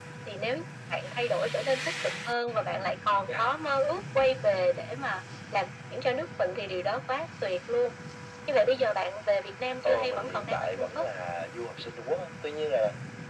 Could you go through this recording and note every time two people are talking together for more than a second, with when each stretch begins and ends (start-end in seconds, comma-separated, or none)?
9.8-11.1